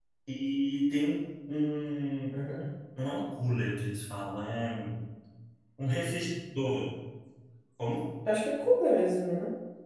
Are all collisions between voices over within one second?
Yes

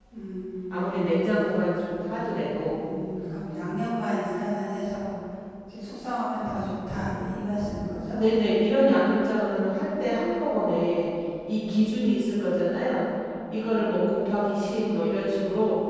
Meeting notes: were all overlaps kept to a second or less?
No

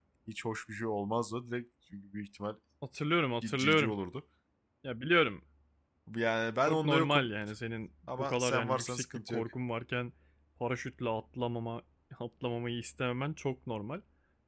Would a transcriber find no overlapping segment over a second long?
No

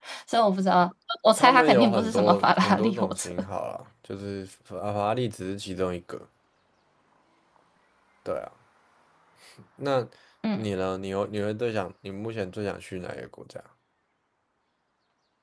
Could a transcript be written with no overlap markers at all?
No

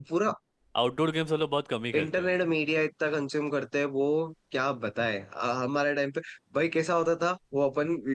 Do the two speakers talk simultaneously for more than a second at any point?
No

